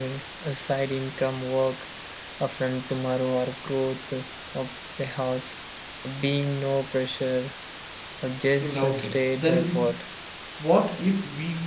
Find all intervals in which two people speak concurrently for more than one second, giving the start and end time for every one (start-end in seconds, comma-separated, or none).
8.6-10.0